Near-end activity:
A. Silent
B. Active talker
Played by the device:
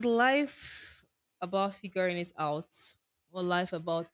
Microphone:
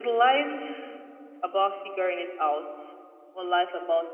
A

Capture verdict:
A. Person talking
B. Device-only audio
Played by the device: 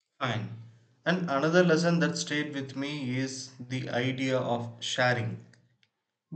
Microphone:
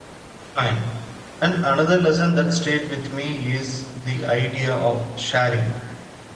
B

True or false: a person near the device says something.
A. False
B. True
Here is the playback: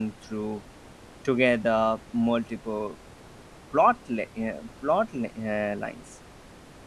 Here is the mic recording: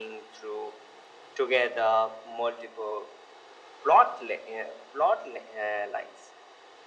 A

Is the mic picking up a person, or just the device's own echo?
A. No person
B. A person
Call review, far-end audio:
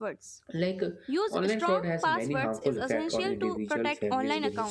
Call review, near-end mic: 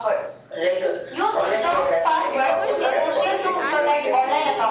B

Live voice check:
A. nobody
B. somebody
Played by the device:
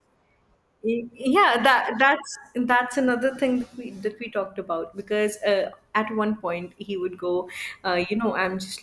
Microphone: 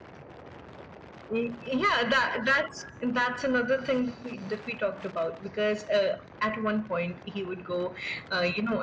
A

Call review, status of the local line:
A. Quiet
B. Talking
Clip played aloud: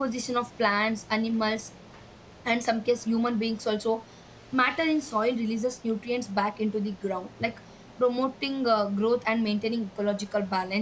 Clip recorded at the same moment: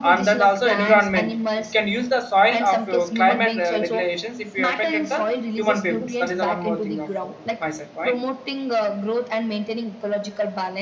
B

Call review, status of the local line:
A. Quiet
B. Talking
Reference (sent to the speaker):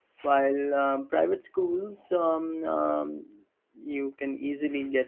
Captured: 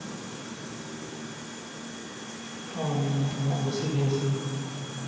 B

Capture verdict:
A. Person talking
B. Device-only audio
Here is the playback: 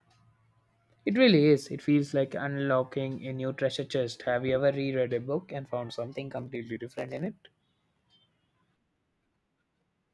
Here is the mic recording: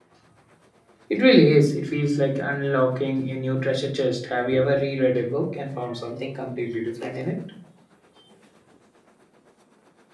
B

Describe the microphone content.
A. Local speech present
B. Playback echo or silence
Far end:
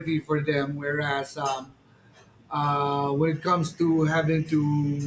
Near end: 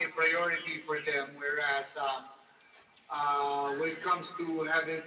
A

